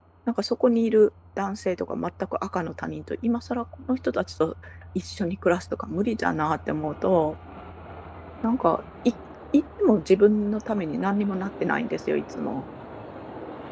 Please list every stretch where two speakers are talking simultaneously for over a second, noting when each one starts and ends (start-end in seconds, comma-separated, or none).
none